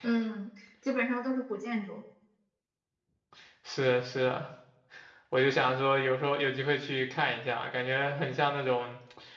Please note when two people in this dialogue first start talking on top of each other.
none

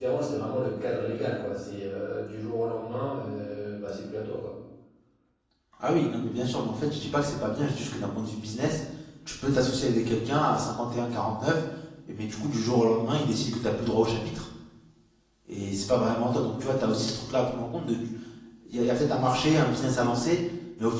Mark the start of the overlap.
none

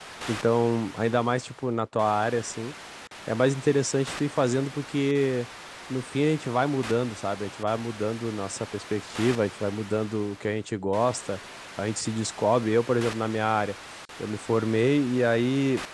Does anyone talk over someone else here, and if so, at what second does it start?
none

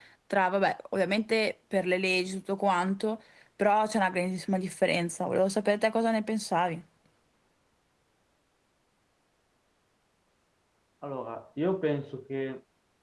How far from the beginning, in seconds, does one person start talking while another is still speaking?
none

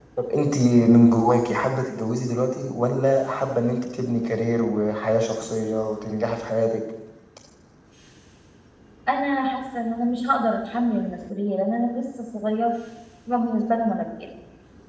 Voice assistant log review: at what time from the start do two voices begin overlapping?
none

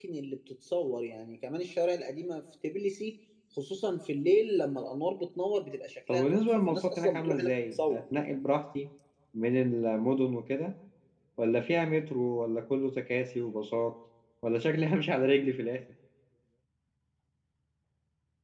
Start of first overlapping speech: 6.1 s

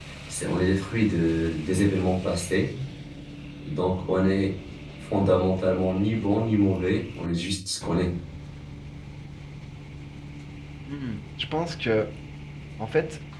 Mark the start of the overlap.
none

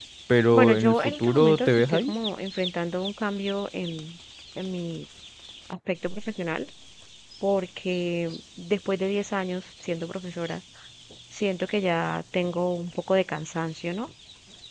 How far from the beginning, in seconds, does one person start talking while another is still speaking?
0.5 s

